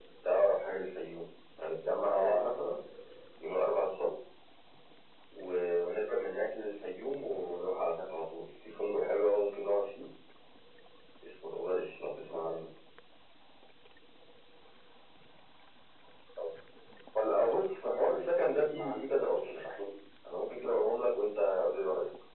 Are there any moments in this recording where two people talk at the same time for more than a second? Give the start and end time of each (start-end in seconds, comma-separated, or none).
18.0-19.6